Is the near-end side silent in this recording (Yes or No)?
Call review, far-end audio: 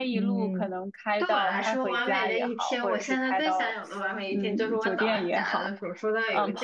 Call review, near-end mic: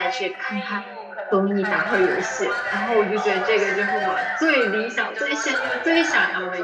No